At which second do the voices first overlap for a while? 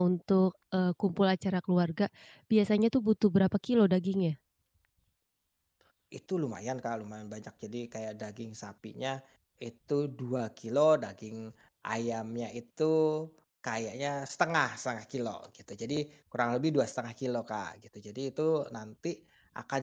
none

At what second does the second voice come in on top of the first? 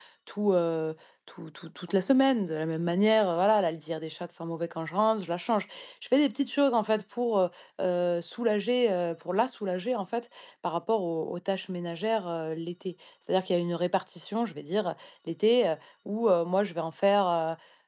none

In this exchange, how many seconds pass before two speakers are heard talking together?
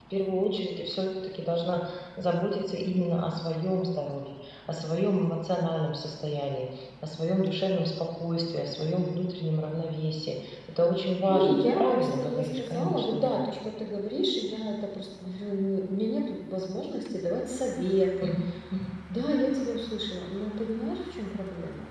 11.3 s

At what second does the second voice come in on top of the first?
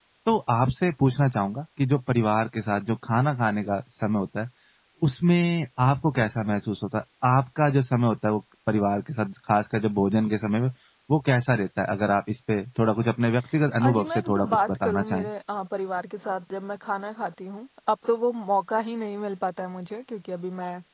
13.8 s

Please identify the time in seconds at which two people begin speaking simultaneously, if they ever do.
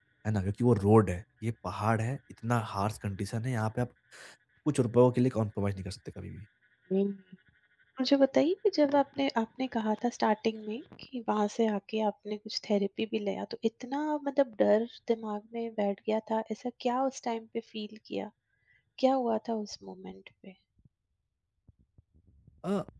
none

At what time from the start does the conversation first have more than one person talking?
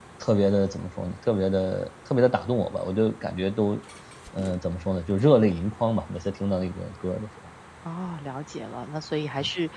none

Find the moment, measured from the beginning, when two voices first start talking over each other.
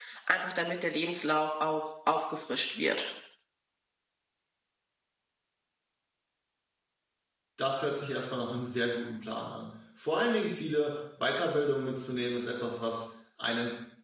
none

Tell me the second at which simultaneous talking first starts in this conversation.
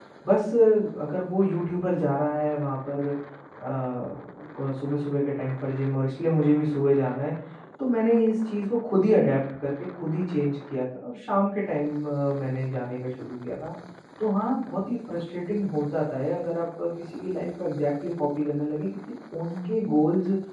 none

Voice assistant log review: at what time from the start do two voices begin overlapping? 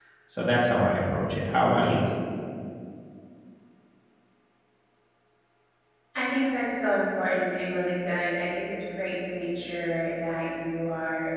none

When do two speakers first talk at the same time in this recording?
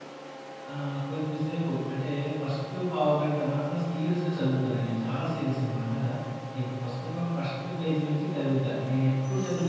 none

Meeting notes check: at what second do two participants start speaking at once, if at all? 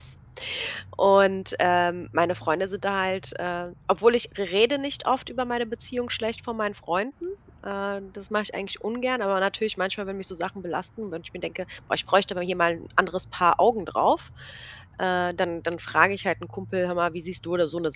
none

